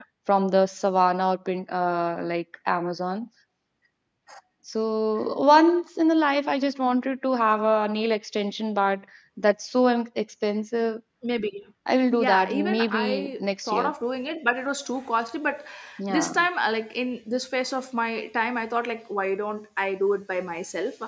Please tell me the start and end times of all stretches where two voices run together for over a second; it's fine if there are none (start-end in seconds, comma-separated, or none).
12.2-13.9